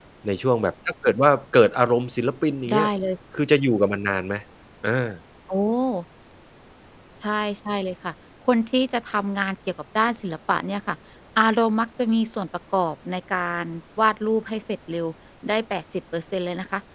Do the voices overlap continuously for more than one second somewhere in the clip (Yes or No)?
No